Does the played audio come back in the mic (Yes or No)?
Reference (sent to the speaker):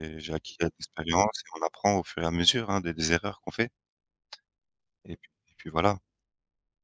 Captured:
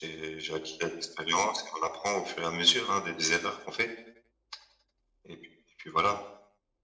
Yes